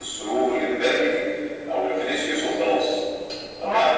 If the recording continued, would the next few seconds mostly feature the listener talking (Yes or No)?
No